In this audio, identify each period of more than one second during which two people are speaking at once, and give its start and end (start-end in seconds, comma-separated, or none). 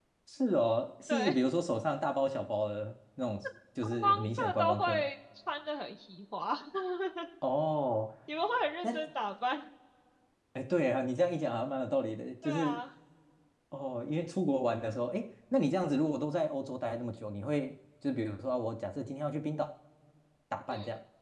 3.8-5.1